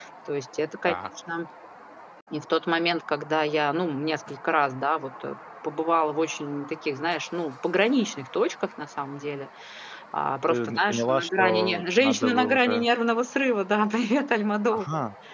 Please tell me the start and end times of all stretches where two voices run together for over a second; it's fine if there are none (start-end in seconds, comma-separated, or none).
10.5-12.8